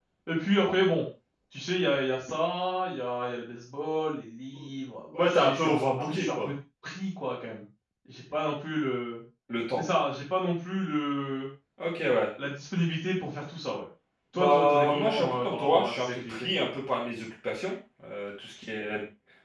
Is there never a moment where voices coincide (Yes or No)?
No